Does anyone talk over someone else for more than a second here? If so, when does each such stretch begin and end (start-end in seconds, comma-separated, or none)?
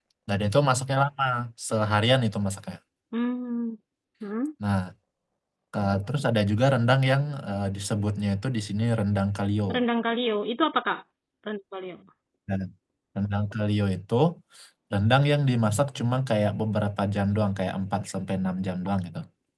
none